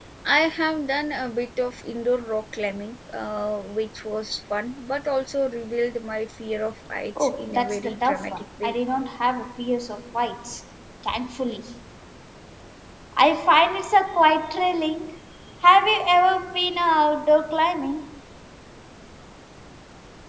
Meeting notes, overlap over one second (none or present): present